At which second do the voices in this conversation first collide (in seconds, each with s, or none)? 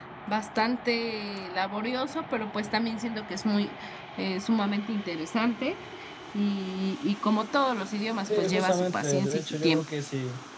8.3 s